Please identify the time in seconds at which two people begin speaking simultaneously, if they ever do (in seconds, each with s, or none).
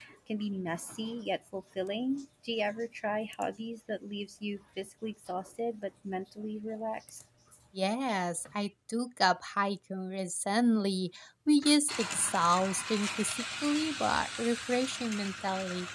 none